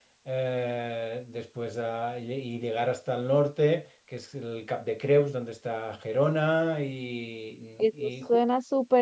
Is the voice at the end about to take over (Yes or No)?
Yes